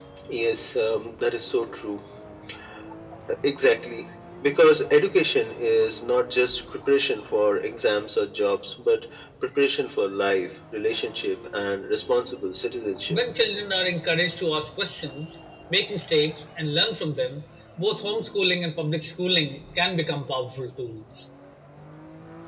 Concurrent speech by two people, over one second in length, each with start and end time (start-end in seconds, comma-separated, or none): none